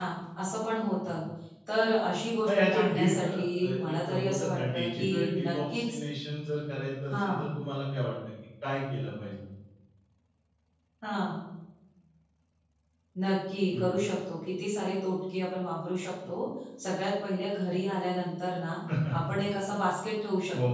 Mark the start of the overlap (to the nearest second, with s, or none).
2 s